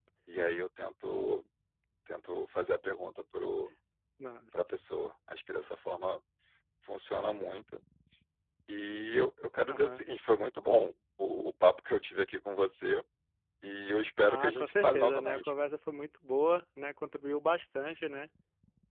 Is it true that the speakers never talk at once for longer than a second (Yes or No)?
No